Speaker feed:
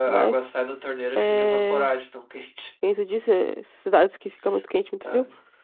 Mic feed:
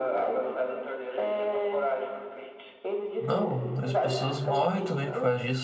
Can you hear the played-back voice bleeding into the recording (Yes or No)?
Yes